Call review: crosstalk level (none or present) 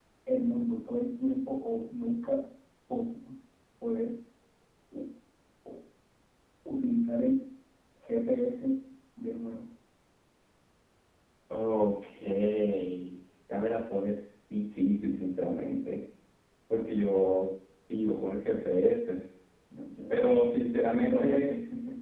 present